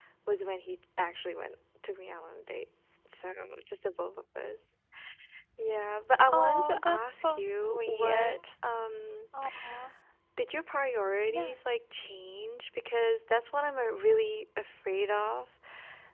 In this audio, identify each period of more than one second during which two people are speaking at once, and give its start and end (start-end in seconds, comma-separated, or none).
6.3-8.4